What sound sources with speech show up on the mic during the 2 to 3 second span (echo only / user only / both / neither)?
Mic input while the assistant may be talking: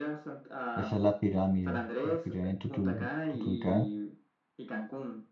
both